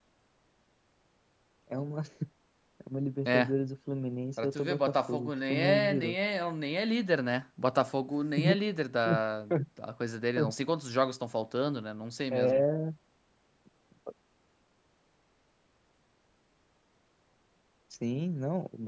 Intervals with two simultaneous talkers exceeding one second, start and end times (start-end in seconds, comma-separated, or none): 4.4-6.2